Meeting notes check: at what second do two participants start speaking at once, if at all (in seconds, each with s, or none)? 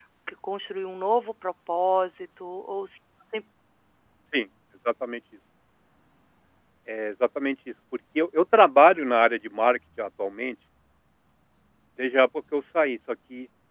none